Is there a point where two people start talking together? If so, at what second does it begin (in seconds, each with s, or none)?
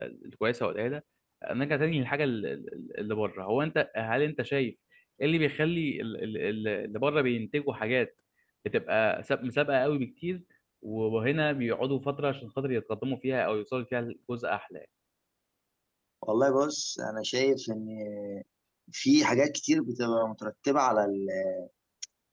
none